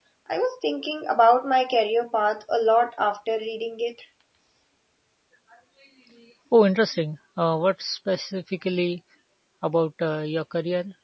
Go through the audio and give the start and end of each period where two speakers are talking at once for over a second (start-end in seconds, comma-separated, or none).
none